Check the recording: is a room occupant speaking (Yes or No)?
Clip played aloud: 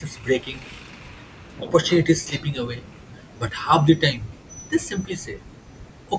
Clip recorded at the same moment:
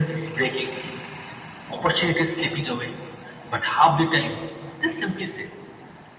No